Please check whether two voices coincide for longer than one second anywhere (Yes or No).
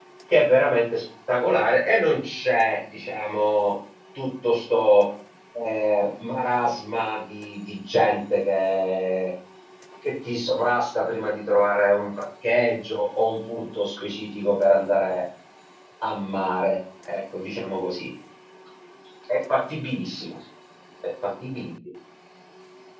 No